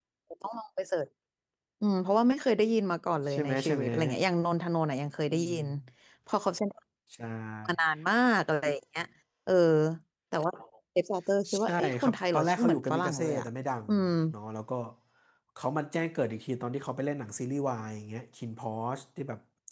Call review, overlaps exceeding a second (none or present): present